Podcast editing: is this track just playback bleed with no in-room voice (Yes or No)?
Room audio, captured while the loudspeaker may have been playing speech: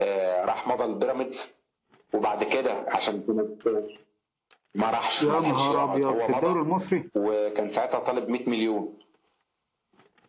No